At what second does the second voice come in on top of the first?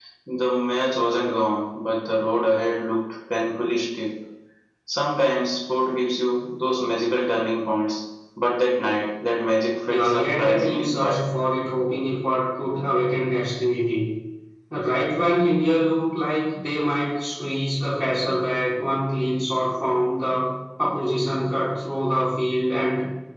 9.9 s

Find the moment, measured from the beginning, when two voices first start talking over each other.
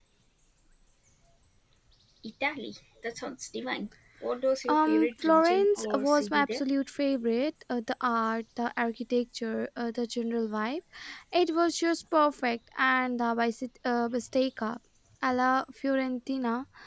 4.7 s

